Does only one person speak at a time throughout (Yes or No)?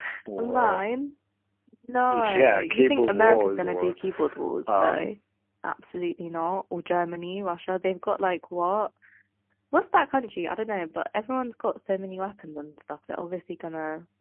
No